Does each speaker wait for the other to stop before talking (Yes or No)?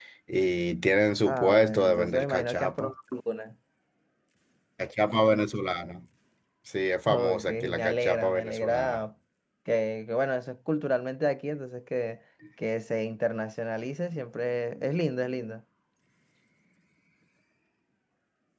No